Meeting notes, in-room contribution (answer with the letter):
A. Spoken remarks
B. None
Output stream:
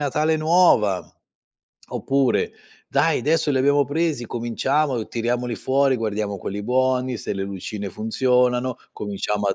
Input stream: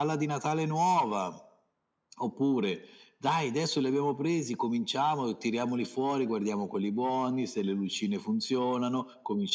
B